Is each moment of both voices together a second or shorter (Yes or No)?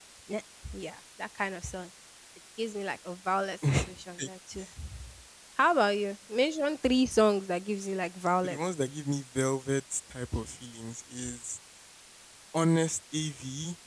Yes